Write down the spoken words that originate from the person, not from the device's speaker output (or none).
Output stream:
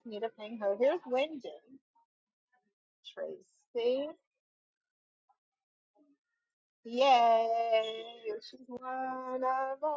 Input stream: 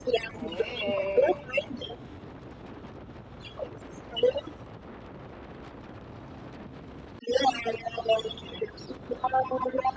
Hey.